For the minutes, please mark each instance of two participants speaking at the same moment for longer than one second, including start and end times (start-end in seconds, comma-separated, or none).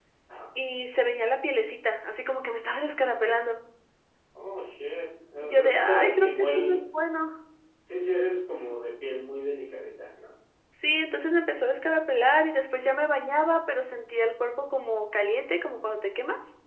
5.4-6.8